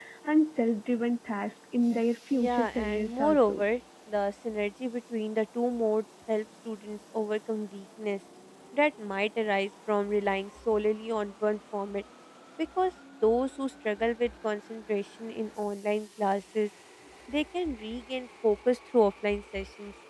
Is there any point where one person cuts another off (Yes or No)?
Yes